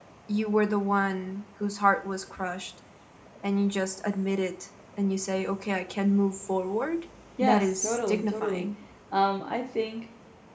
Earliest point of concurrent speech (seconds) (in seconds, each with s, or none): 7.4 s